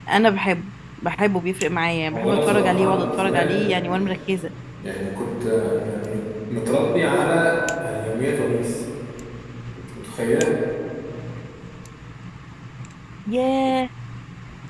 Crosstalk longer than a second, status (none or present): present